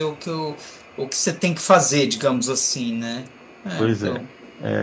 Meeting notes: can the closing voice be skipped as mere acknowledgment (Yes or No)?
No